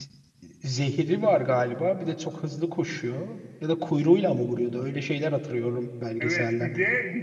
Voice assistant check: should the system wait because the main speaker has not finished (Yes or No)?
No